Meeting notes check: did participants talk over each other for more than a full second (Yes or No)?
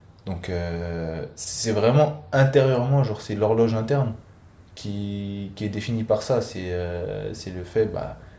No